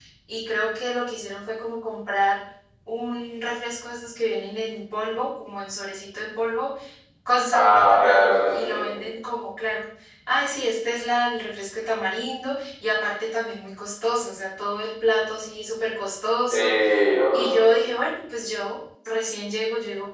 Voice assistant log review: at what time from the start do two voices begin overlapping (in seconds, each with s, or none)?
7.5 s